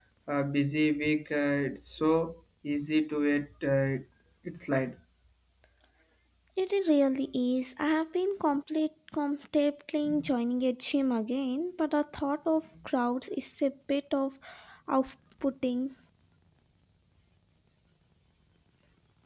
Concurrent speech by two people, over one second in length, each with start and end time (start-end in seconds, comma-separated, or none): none